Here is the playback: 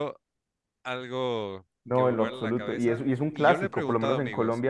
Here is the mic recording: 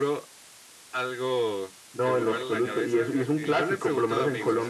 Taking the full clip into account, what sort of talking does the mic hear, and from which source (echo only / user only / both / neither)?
both